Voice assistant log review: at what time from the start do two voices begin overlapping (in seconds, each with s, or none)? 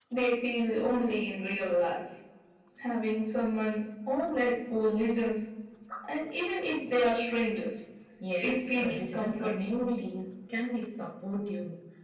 8.5 s